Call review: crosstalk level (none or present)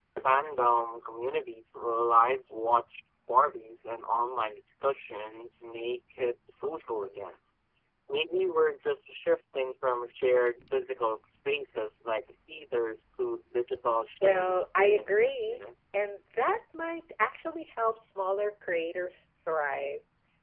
present